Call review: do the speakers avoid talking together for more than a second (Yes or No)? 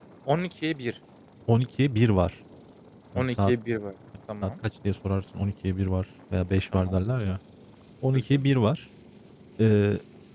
Yes